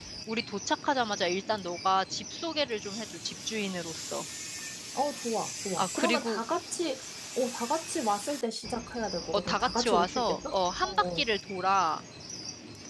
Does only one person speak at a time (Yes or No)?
No